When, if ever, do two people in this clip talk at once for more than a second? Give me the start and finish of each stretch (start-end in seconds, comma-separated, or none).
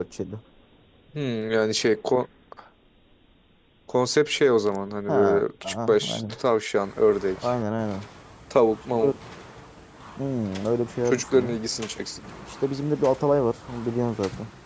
5.1-6.4